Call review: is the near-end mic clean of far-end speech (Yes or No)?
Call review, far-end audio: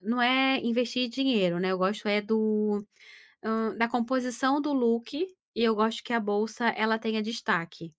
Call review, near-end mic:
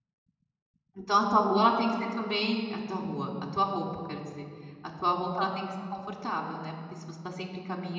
Yes